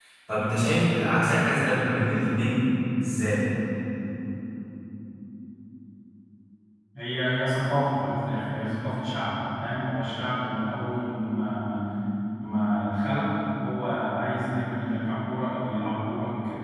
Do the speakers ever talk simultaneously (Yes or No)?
No